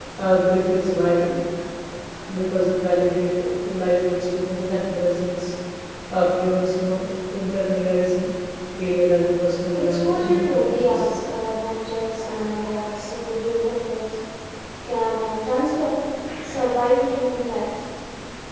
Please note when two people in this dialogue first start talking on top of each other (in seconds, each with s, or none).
9.7 s